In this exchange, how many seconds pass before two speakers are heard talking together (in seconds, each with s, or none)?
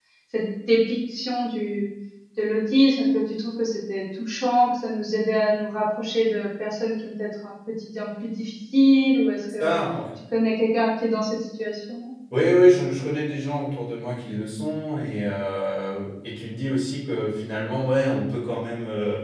none